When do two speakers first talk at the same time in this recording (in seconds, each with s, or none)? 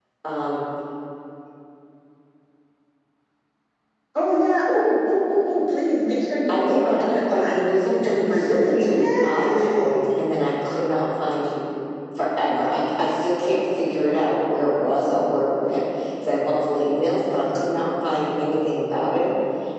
6.5 s